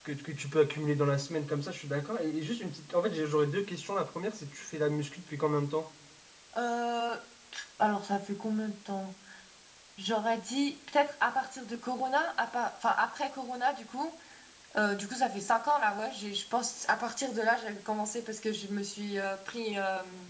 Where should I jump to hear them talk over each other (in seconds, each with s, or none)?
none